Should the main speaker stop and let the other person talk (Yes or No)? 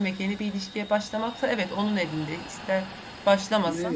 Yes